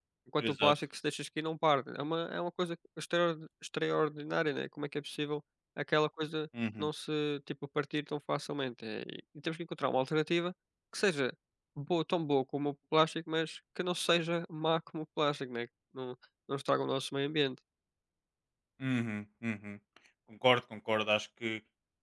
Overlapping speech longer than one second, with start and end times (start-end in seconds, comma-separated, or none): none